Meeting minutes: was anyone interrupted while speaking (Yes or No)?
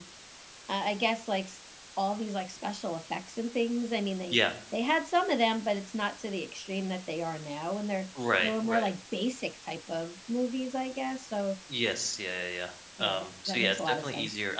Yes